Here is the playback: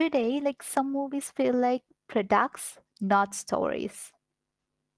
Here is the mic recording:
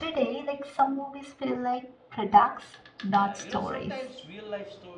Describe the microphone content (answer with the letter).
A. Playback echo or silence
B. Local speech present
B